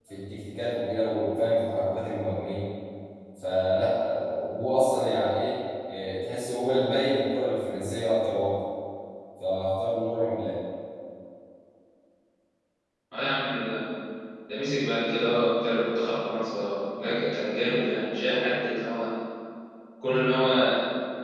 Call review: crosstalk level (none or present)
none